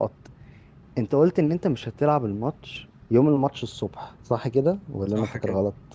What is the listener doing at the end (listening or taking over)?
taking over